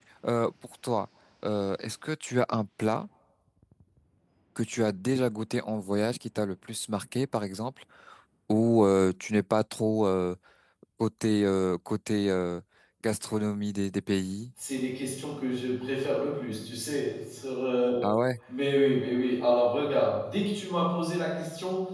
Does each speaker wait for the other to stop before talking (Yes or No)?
Yes